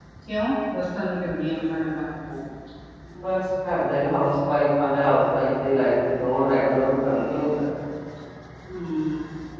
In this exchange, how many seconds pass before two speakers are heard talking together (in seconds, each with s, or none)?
none